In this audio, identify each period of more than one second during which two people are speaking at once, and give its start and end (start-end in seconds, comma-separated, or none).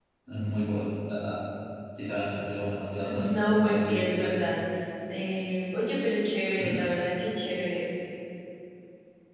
3.0-4.5